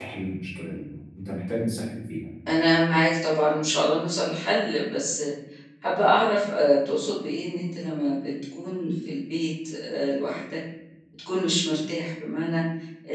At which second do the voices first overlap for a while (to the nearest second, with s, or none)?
none